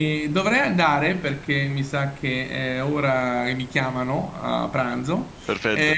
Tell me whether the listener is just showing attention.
Yes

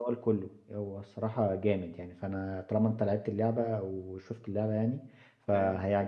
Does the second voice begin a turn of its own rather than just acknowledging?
No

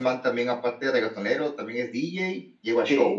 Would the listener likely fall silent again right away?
No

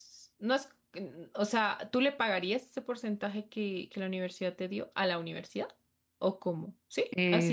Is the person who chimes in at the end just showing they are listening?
No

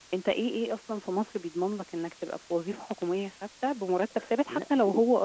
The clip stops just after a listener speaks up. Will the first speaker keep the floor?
Yes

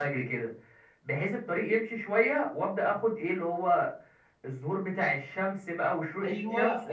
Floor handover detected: Yes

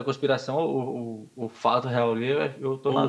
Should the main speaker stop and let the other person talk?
Yes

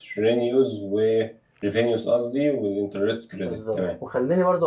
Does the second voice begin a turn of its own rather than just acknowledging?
Yes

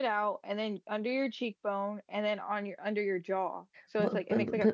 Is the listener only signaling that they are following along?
No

